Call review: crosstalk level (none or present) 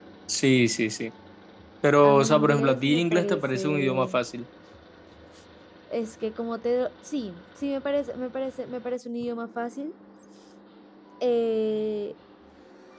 present